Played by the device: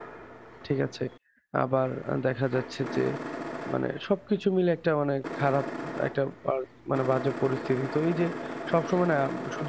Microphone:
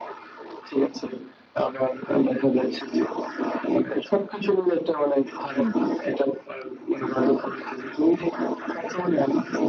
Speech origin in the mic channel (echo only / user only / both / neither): both